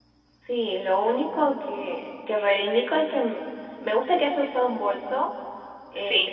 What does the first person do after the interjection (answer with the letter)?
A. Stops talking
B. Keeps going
B